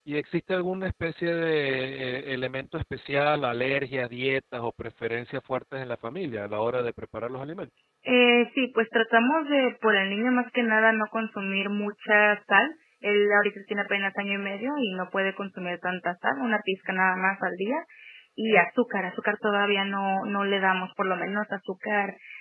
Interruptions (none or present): none